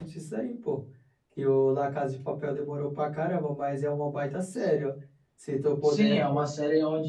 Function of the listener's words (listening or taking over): taking over